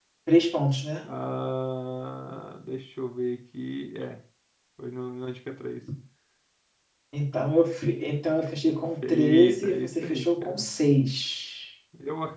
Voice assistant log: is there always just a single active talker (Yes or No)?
No